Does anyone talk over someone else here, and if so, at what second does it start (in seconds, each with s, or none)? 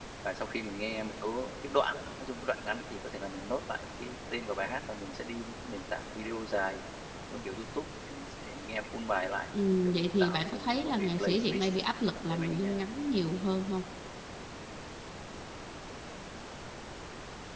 9.7 s